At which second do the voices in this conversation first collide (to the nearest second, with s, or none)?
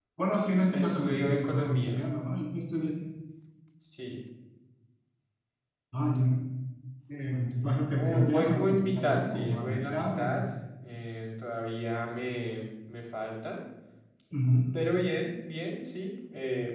1 s